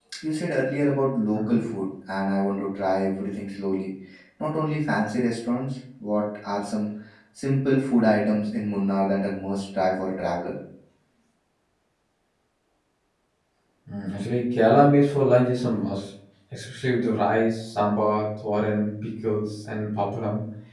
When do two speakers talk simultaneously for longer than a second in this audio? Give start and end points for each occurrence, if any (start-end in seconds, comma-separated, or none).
none